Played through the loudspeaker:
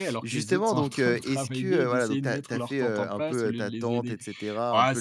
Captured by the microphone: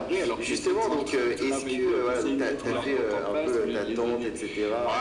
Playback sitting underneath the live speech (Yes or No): No